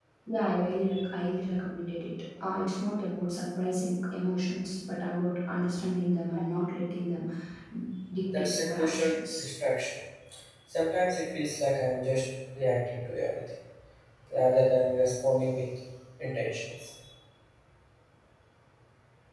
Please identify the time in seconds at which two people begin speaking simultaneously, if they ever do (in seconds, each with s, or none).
8.2 s